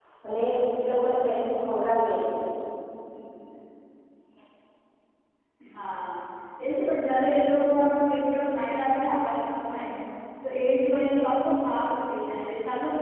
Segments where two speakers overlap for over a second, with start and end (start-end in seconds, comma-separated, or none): none